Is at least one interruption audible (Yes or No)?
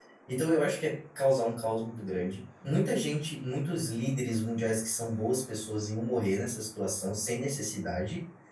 No